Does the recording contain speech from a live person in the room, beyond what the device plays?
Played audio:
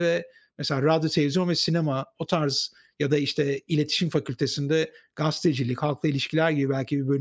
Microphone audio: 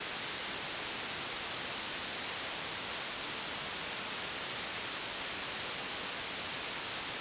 No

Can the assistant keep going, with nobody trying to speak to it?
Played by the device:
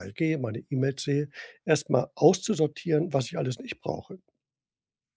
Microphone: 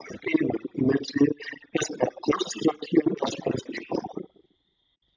Yes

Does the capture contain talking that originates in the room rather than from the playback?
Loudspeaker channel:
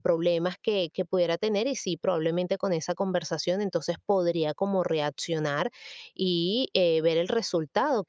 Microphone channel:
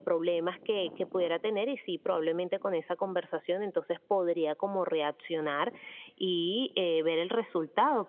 No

